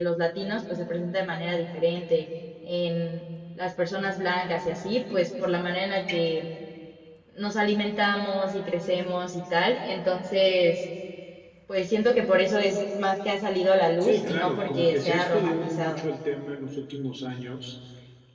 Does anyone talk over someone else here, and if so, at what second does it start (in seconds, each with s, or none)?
14.0 s